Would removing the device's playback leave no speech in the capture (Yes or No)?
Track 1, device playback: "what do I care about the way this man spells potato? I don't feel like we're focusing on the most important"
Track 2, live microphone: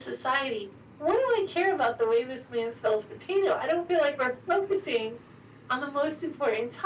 Yes